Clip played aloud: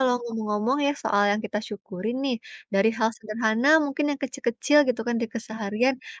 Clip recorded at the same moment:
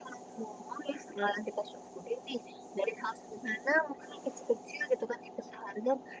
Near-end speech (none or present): none